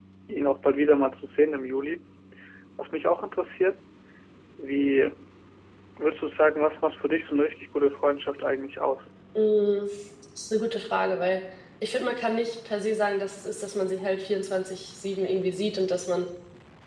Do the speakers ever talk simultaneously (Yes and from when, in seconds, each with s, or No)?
No